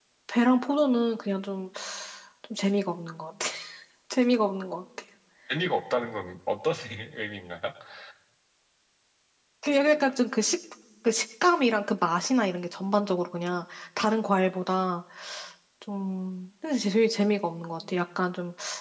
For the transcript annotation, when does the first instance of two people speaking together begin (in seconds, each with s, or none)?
none